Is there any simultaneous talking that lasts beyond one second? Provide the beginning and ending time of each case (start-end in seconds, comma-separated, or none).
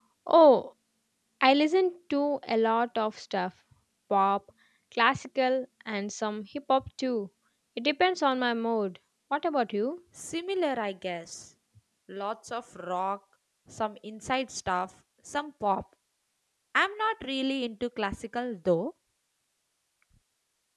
none